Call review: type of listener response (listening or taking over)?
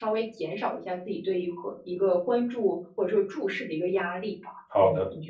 taking over